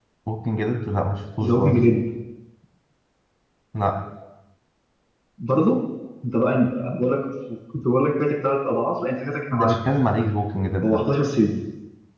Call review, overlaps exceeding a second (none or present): none